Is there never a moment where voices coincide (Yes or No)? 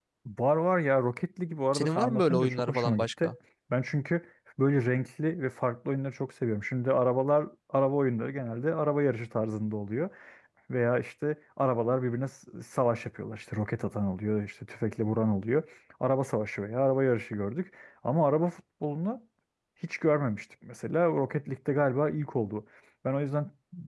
No